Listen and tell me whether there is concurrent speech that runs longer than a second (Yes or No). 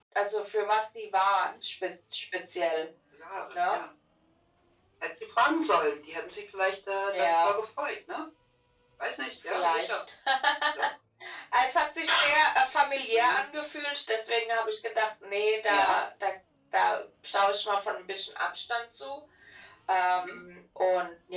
No